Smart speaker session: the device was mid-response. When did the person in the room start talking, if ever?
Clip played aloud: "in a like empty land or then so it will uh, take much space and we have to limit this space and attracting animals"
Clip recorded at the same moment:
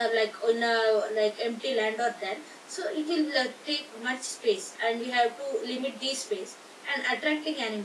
none

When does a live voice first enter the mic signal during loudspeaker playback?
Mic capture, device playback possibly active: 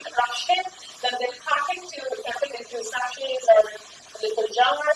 none

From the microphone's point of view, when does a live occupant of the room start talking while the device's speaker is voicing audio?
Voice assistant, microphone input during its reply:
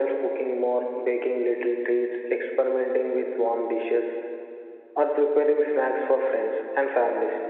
none

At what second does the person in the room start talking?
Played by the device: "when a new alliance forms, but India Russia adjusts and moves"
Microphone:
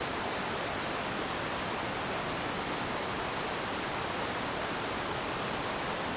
none

